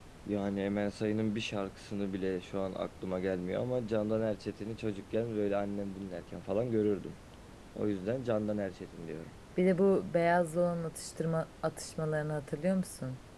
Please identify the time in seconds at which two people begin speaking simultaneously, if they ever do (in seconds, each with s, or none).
none